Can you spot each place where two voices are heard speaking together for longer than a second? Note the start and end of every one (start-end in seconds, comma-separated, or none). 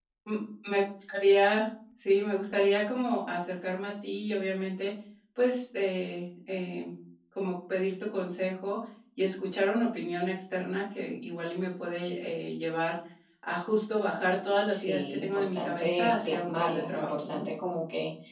14.7-17.4